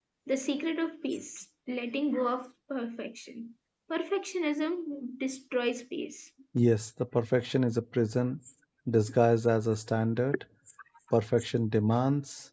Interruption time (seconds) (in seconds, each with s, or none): none